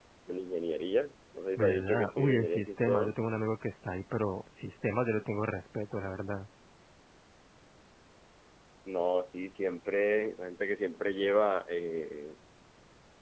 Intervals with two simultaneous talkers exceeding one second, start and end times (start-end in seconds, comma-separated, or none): 1.6-3.1